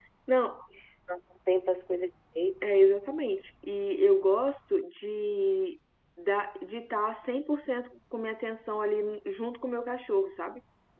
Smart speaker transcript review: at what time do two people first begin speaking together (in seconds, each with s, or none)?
none